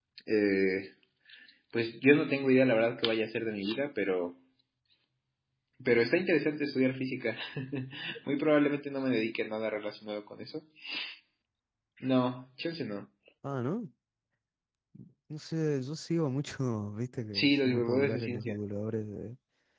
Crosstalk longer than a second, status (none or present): present